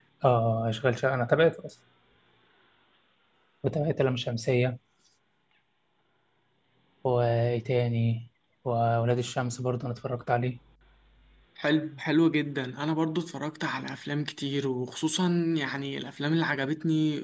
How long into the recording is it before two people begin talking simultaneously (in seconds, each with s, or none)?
none